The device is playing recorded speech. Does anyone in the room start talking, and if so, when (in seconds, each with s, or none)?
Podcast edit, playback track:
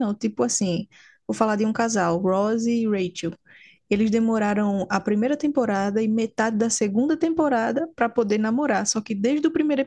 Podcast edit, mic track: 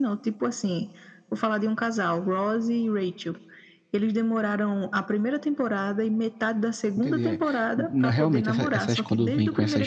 7.0 s